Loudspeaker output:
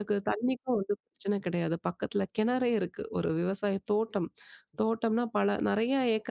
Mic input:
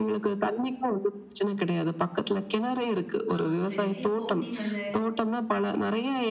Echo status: present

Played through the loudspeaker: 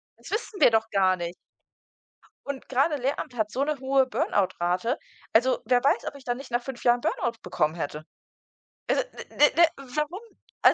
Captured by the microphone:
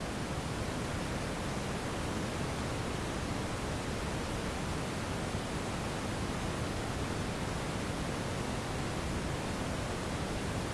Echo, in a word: none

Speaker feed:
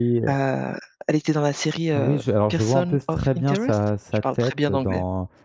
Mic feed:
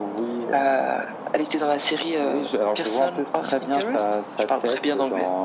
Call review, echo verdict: present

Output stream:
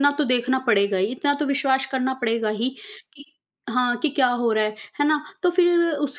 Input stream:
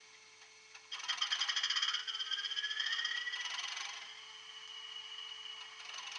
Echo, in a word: none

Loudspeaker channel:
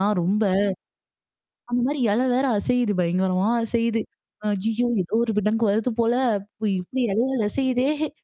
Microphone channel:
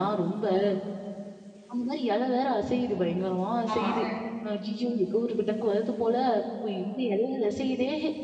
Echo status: present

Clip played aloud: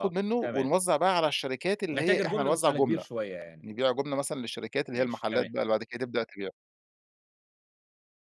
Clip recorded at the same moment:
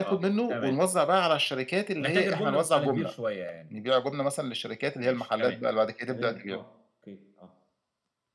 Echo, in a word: present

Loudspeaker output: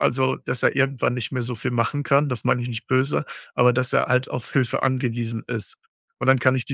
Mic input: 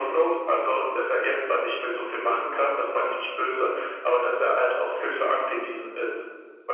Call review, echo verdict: present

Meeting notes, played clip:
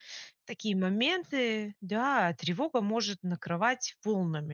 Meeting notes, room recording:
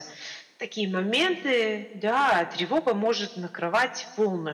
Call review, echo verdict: present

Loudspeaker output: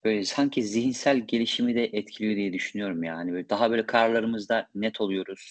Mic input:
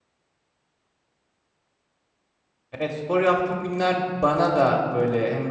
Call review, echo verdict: none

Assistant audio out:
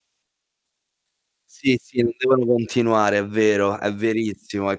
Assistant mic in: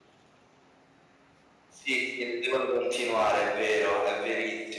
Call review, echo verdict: present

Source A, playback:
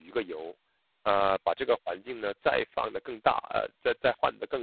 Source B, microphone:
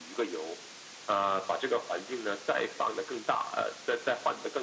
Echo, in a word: present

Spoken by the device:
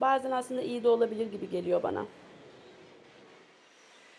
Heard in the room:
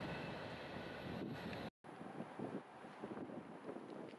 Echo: none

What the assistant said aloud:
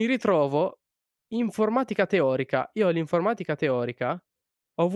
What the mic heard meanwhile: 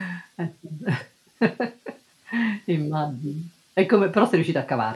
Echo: none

